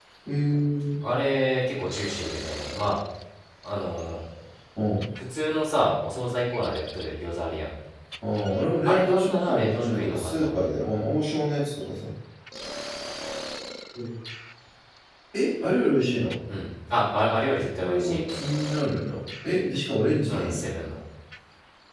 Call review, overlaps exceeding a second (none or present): present